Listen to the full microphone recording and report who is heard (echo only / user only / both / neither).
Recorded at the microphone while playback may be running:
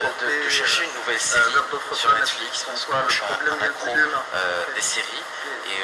echo only